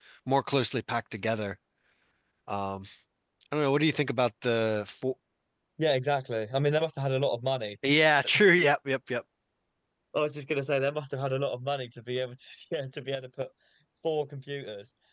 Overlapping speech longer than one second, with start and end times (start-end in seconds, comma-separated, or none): none